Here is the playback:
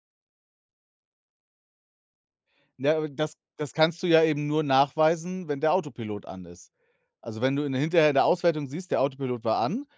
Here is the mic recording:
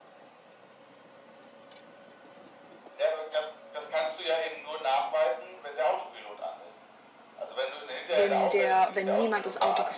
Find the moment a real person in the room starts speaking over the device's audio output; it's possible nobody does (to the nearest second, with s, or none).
8 s